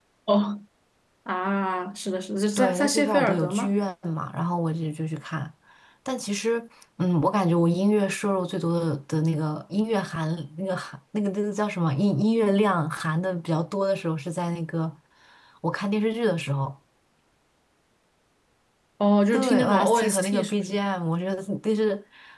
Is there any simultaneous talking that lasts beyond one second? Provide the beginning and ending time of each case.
2.6-3.8, 19.3-20.8

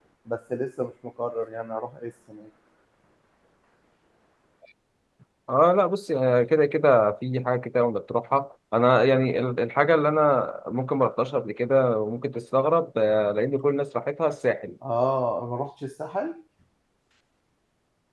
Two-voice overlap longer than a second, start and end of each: none

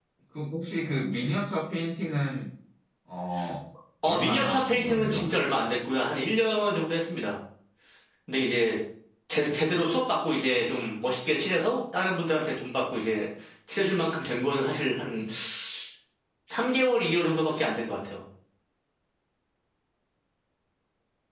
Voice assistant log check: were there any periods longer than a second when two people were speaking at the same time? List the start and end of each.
4.0-5.3

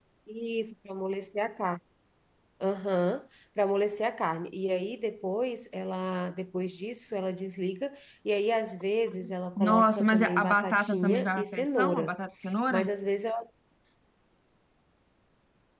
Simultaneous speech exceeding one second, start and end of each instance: 9.7-12.1

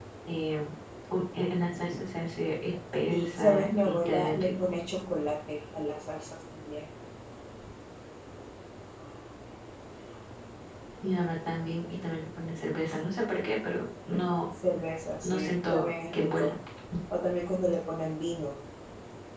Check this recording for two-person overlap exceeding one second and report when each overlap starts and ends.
3.1-4.8, 15.2-16.5

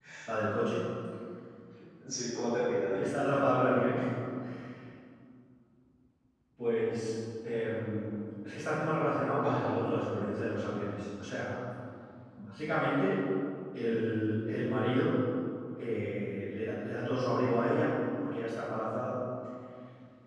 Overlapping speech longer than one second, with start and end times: none

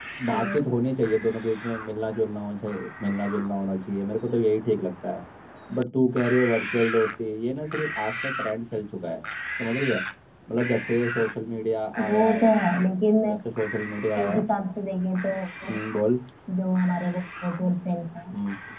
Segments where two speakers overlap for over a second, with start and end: none

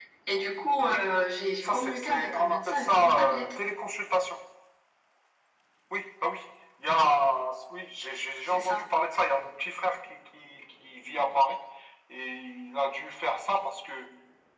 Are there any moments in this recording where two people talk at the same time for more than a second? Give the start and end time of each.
1.6-3.5

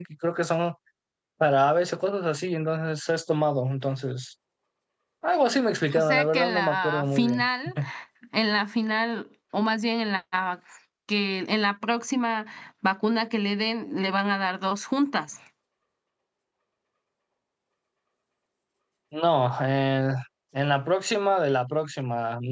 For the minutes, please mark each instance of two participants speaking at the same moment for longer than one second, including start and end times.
6.0-7.5

